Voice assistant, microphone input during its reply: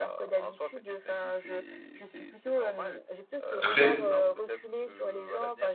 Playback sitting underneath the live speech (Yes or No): Yes